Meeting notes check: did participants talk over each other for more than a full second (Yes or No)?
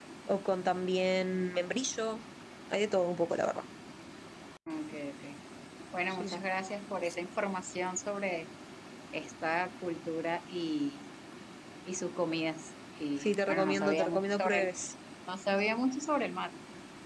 Yes